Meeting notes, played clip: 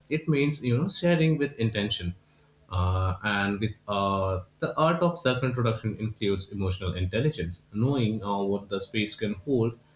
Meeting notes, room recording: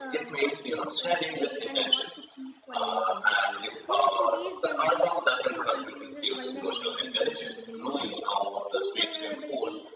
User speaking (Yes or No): Yes